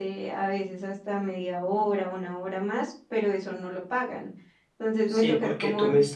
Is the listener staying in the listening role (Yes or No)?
No